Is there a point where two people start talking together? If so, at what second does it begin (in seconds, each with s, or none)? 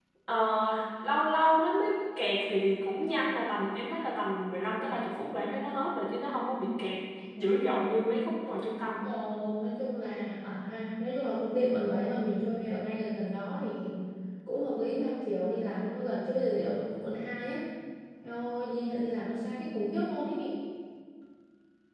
none